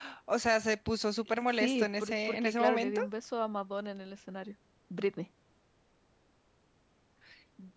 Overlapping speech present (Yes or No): Yes